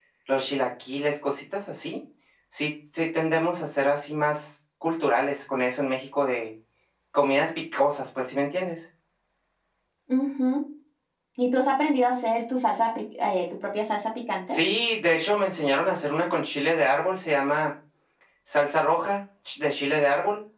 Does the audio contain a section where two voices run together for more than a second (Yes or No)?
No